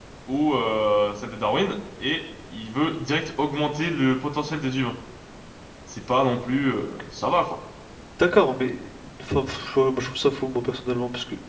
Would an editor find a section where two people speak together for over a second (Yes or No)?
No